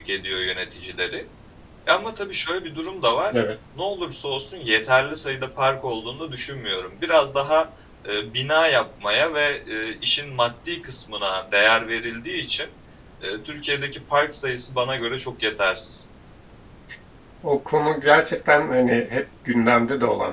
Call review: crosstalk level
none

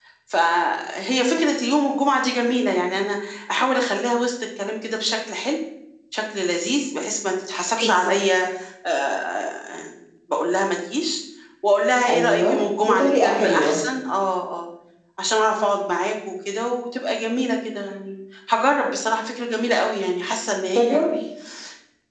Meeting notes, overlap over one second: present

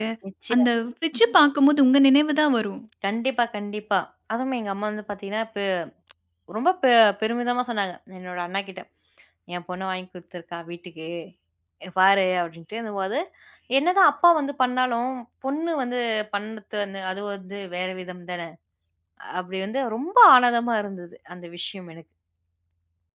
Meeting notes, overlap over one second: none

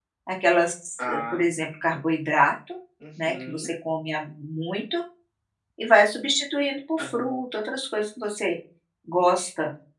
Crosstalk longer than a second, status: none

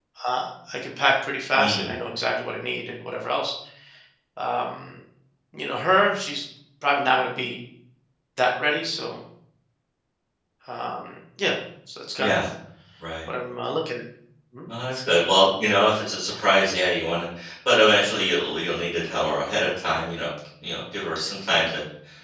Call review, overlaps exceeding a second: none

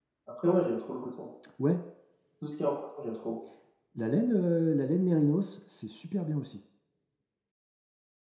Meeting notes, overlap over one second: none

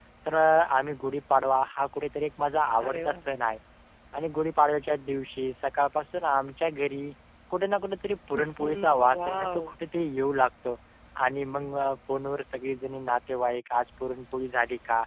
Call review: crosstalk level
present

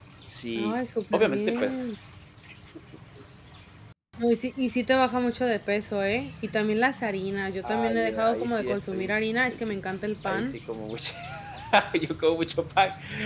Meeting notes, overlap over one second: present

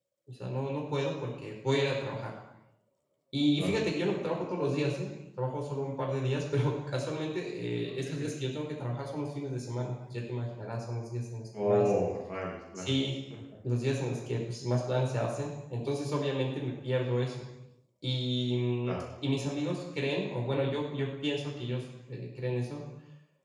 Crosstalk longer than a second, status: none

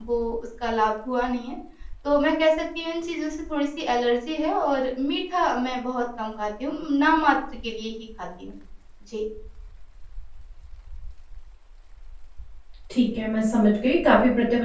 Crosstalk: none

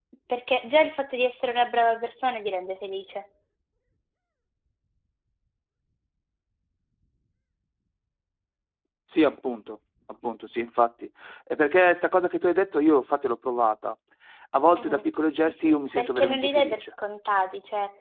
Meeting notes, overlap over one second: present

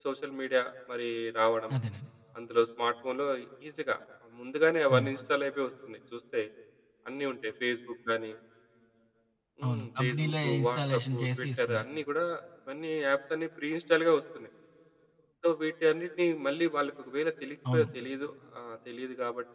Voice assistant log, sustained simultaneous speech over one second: present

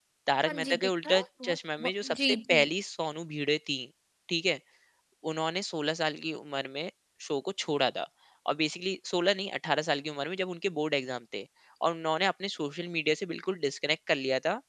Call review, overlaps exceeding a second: present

